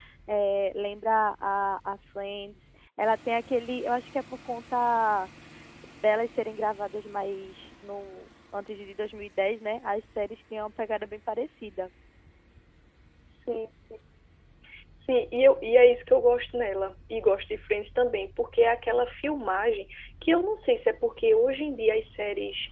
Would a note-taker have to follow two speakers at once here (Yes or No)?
No